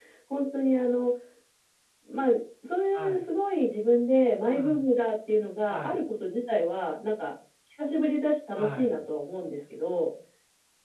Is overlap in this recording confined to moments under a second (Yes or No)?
Yes